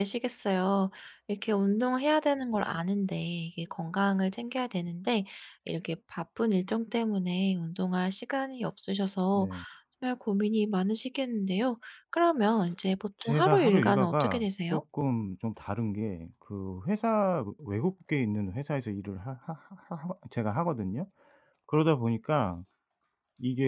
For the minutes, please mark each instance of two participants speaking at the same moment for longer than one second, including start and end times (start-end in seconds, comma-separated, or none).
13.2-14.8